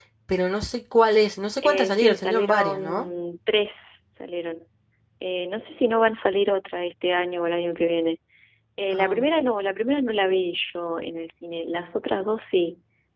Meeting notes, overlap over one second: present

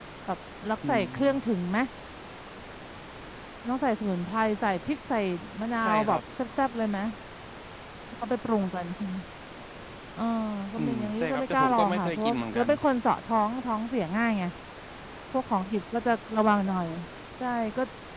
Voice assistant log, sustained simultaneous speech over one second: present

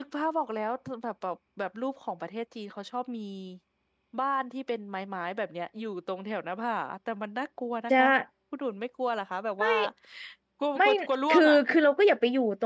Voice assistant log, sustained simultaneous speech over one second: none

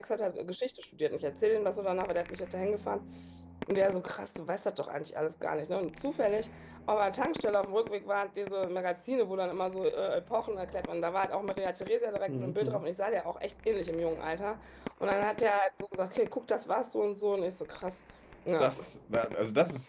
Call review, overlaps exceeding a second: none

